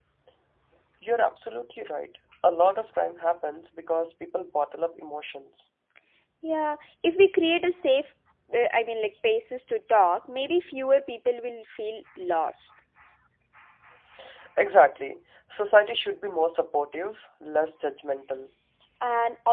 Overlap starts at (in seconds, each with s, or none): none